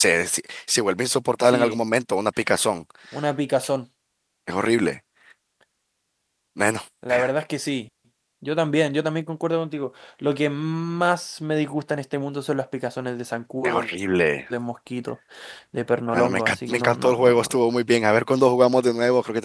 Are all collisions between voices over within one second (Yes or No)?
No